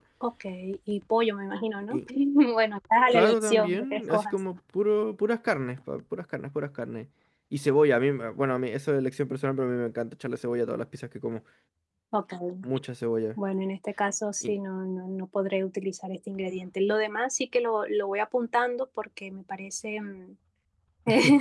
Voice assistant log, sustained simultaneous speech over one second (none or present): present